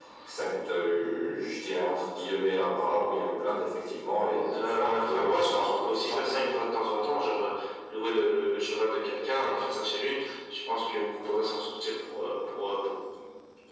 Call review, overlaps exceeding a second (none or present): present